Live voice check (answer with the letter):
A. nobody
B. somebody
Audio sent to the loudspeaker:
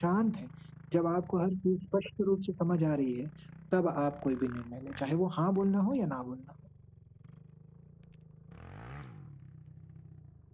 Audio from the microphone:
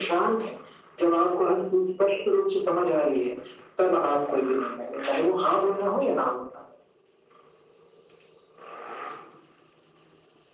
A